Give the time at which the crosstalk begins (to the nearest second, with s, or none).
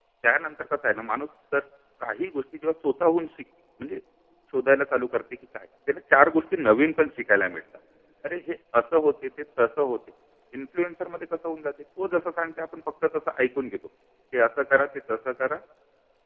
none